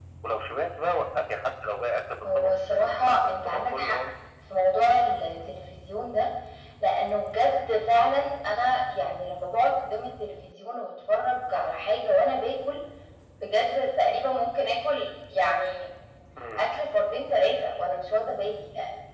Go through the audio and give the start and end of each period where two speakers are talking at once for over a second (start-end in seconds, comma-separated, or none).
2.2-4.0